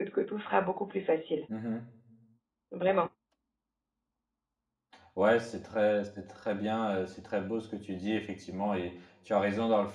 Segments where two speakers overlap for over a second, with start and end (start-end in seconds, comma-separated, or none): none